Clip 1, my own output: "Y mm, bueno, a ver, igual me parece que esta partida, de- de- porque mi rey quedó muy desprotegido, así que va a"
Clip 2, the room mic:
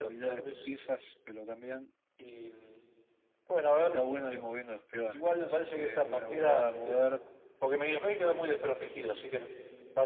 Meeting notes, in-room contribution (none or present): present